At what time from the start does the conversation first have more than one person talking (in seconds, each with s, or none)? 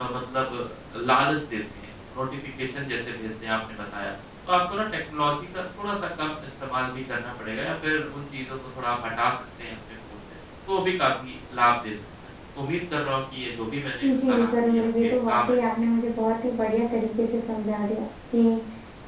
14.0 s